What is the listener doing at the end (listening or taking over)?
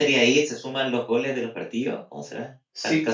taking over